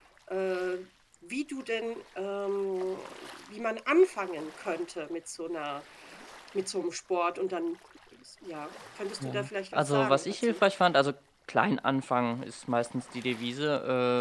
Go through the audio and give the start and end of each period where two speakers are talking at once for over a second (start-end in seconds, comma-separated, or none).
9.2-10.6